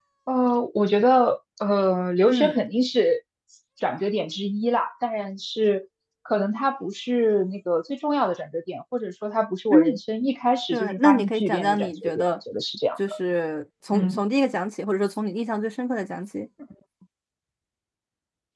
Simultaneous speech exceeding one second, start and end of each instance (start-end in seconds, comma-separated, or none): 10.7-12.2